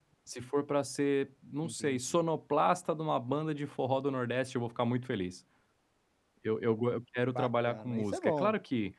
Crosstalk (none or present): present